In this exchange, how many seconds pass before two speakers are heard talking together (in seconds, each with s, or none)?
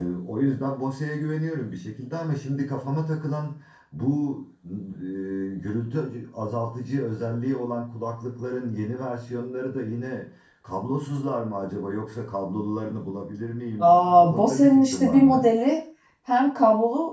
13.8 s